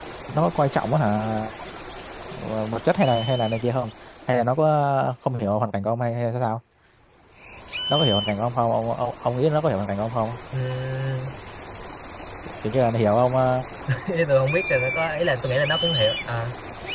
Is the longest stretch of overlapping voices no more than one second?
Yes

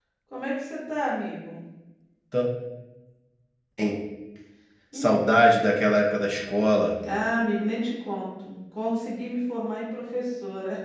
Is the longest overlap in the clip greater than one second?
No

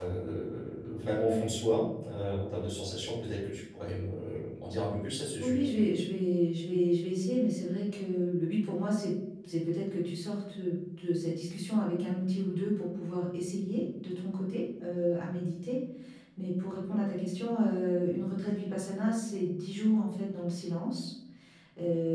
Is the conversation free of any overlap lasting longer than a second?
Yes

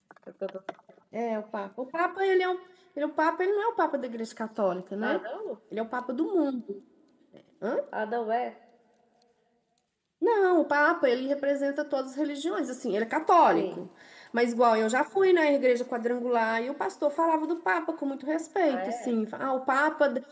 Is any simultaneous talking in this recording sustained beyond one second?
No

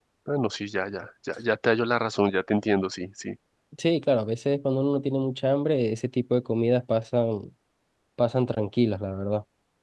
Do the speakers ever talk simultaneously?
No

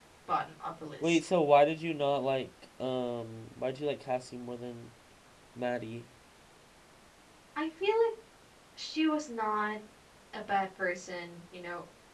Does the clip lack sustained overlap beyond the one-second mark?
Yes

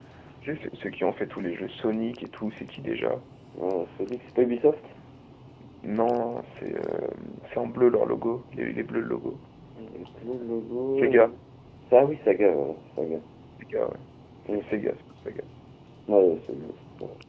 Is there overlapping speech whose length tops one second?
No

